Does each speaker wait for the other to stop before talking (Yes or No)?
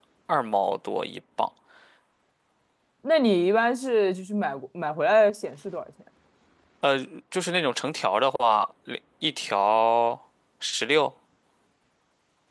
Yes